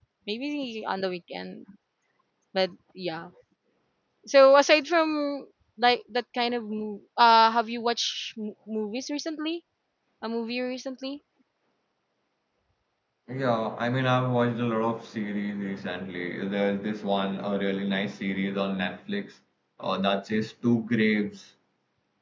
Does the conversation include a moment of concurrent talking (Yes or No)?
No